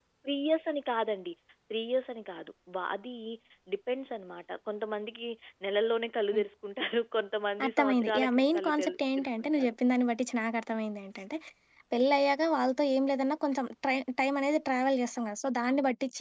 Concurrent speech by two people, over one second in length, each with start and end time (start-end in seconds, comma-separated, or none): 7.7-9.7